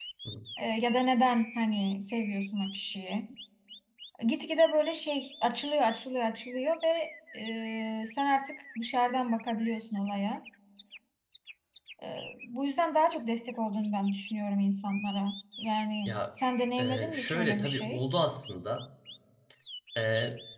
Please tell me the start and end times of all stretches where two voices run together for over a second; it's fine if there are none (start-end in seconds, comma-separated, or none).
16.8-18.0